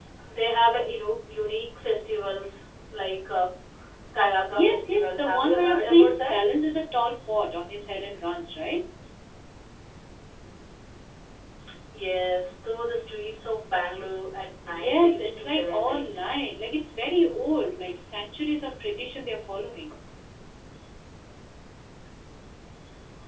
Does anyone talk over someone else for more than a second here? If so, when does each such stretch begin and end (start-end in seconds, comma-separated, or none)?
4.5-6.4, 14.7-16.0